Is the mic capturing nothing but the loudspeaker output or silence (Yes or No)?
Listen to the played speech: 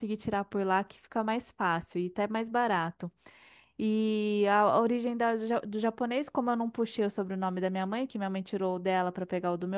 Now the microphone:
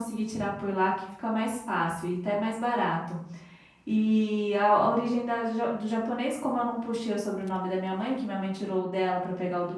Yes